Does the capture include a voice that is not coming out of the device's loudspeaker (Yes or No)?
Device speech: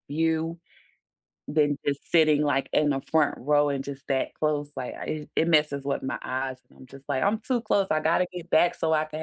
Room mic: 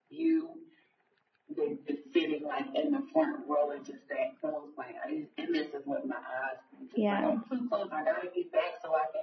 Yes